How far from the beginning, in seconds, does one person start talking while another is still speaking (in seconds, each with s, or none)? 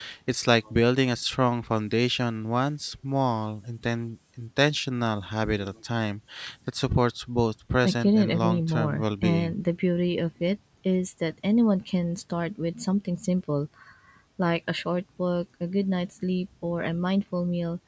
7.8 s